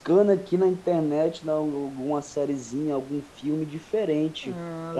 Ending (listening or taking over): listening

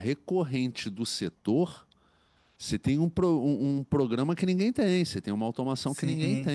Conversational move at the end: taking over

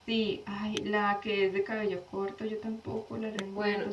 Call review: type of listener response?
listening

